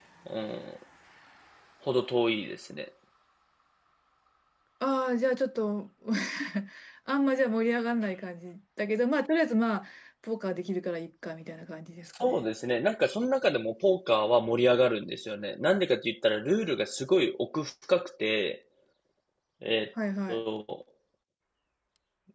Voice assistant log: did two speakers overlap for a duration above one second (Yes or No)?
No